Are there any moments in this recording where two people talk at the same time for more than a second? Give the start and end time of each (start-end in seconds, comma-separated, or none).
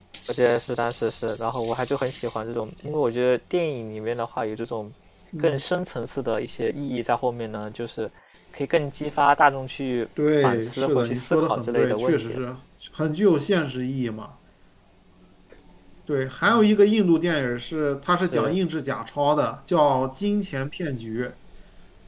10.4-12.4